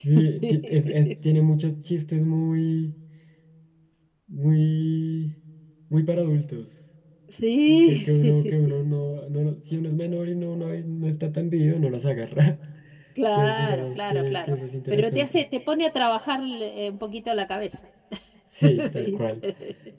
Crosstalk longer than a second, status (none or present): present